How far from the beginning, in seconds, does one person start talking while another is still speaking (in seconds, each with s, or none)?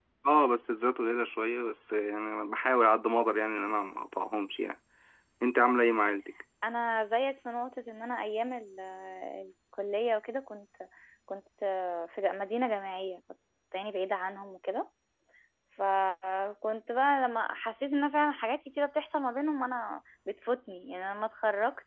none